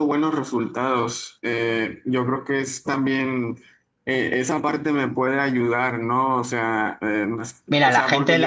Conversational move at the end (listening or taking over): taking over